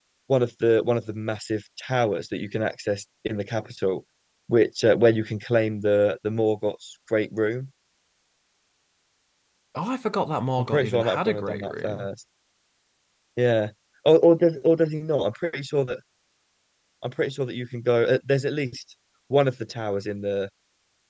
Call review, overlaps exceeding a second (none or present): present